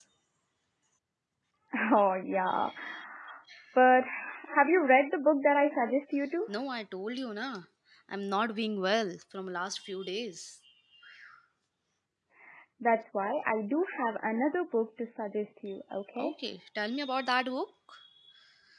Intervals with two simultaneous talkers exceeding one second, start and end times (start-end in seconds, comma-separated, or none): none